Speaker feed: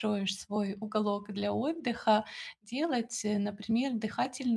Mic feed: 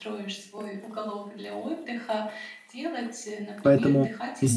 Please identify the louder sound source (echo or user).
user